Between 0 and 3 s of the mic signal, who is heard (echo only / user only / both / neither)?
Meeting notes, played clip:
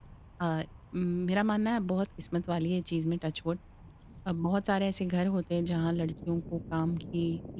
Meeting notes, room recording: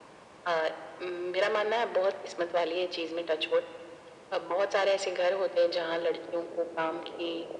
echo only